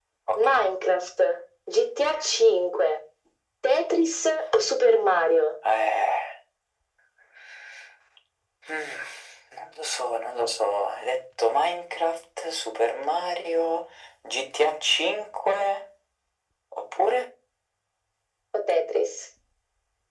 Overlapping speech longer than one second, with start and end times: none

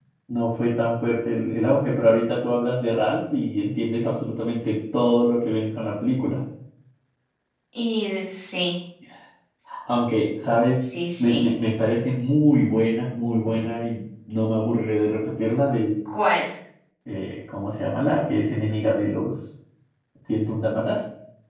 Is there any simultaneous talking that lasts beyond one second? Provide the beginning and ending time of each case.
none

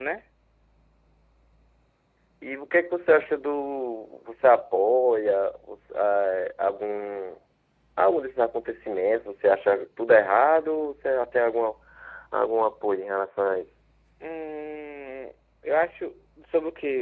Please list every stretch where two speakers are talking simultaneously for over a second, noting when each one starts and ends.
none

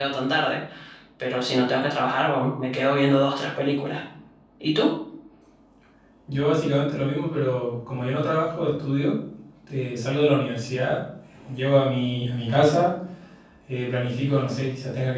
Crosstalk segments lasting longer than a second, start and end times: none

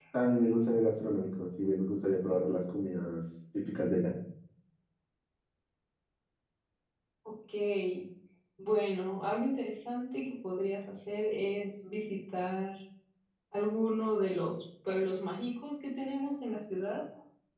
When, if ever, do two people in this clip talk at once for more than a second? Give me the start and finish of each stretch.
none

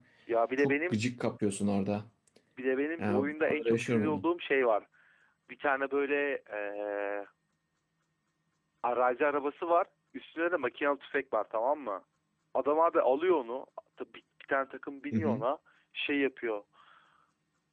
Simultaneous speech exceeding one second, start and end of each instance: 3.0-4.2

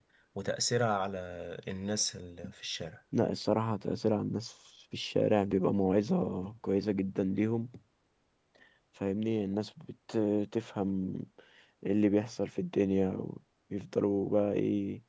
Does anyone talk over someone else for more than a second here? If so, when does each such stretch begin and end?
none

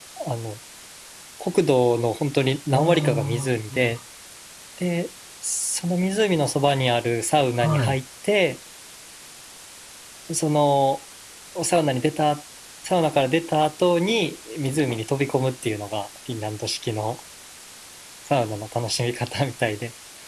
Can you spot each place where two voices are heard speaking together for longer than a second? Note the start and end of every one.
2.8-4.0

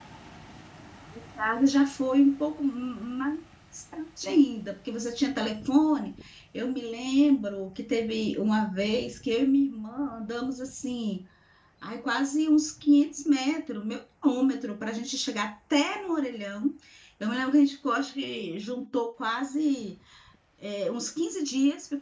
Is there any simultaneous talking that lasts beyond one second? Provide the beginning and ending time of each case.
none

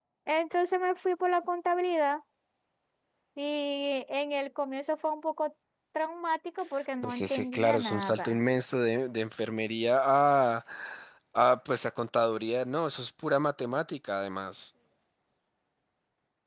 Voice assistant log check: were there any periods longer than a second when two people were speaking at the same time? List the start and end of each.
7.0-8.4

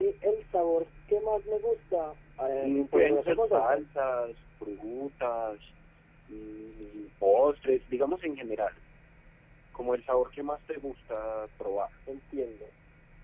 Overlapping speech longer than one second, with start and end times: 2.6-3.8

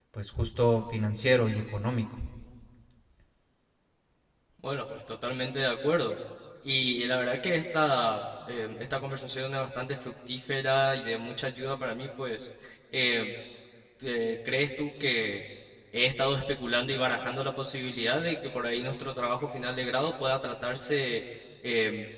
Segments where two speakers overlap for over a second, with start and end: none

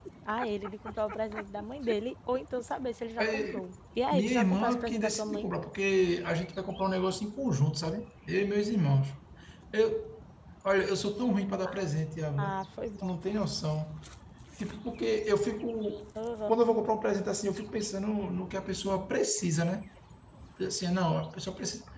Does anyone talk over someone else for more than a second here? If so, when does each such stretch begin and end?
4.1-5.5

